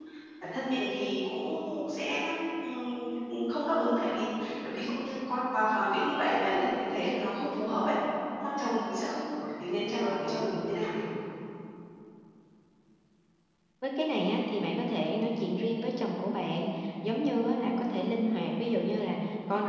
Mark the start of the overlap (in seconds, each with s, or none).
none